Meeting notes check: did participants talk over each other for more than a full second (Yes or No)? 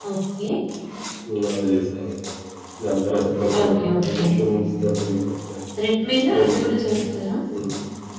No